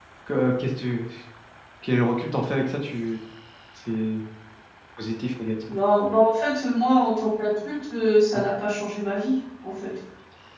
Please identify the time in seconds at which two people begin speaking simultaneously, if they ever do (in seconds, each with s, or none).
none